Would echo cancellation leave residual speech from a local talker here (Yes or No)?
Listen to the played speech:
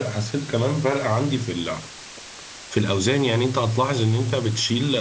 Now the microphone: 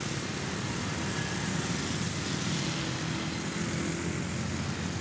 No